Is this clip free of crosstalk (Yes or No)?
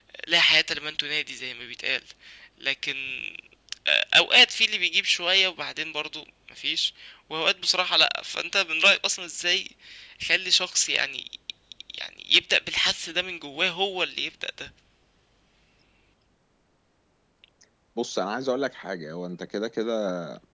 Yes